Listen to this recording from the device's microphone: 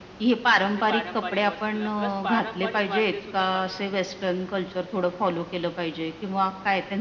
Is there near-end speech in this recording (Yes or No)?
Yes